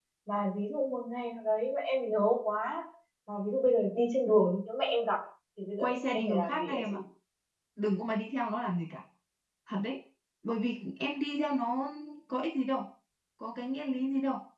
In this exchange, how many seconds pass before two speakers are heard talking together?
5.8 s

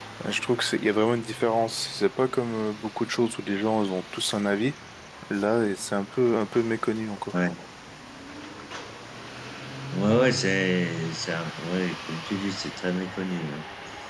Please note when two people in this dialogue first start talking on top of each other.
none

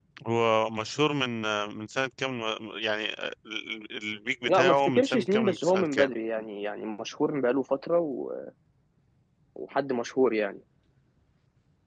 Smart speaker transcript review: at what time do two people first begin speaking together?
4.4 s

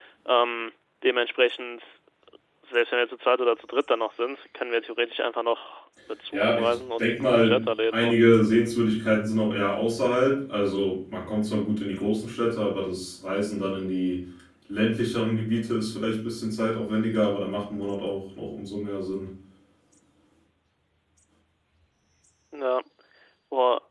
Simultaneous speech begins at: 6.3 s

